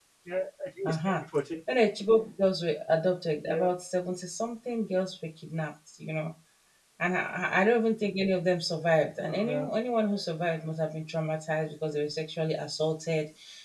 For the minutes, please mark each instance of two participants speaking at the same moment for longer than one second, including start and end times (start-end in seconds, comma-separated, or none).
none